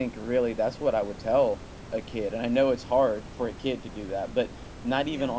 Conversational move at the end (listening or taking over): listening